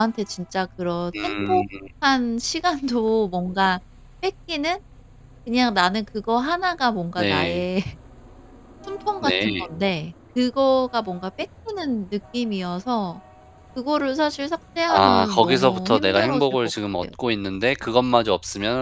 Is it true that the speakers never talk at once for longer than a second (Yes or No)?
No